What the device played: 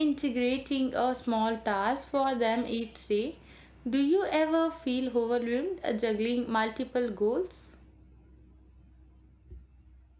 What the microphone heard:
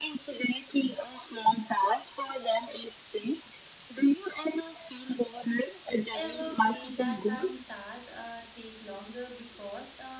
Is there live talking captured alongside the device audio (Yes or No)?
Yes